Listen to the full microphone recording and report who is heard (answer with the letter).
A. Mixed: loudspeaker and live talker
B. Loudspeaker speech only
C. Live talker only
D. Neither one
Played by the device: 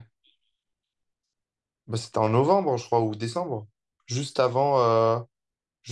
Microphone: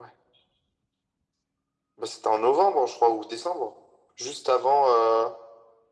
B